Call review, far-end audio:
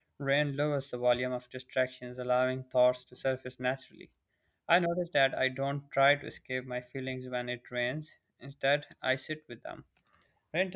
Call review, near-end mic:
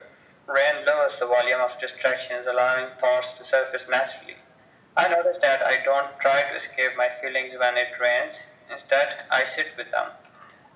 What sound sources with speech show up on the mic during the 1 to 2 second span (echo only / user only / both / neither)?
echo only